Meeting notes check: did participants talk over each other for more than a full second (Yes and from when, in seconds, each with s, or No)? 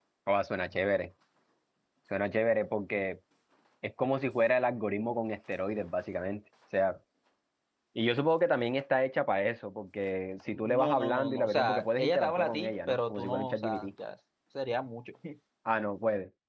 Yes, from 10.8 s